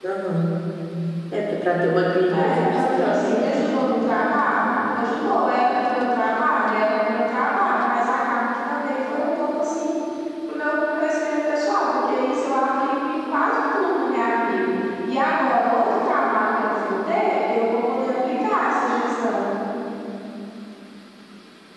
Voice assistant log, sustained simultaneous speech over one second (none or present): present